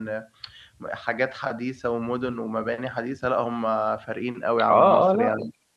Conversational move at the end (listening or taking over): taking over